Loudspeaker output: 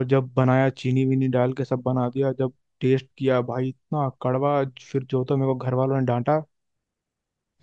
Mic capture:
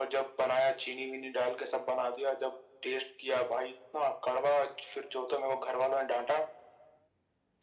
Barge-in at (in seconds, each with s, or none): none